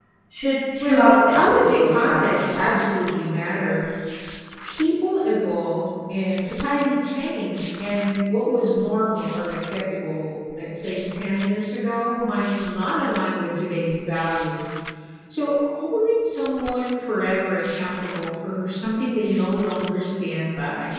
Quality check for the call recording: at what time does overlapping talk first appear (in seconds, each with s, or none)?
0.9 s